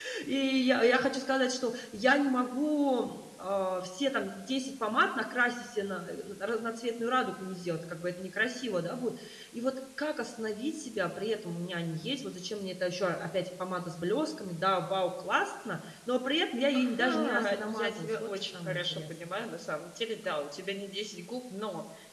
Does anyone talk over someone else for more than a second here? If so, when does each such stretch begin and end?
16.7-19.3

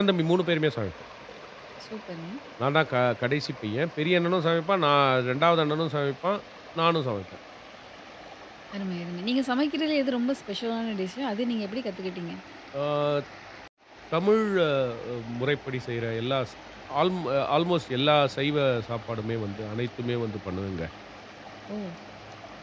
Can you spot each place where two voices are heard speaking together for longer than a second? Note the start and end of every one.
none

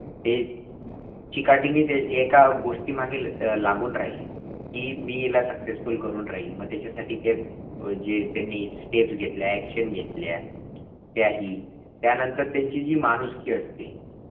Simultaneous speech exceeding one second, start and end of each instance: none

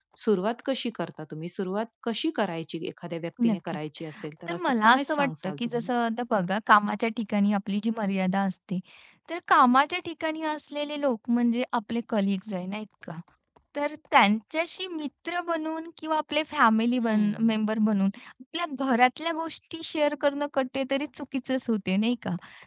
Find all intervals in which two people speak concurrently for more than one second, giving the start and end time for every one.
4.5-5.9

